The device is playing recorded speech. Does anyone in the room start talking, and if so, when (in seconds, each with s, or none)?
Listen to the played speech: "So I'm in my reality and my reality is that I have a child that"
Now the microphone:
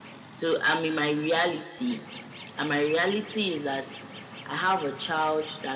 none